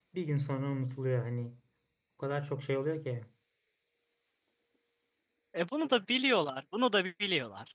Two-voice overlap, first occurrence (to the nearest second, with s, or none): none